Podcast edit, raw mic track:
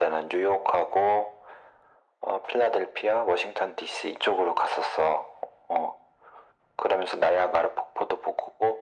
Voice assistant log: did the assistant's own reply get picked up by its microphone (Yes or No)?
Yes